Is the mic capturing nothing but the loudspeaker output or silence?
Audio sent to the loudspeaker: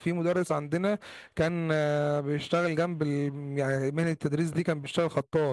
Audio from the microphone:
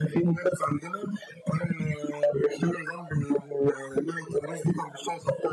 Yes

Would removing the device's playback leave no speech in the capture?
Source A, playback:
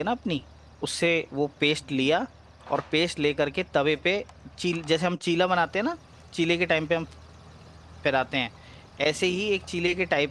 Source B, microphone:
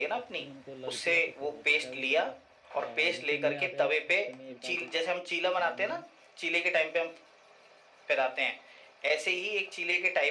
No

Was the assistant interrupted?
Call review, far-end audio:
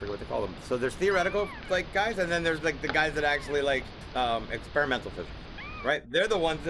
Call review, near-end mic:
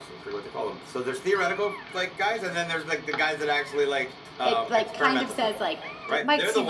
Yes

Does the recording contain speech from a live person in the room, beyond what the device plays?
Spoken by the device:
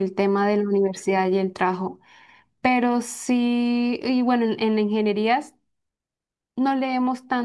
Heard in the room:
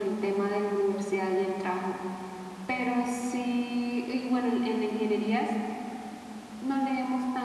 No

